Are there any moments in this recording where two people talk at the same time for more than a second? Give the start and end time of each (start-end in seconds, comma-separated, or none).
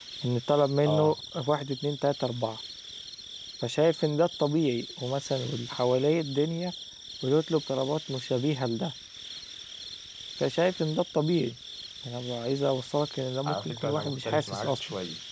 13.5-14.7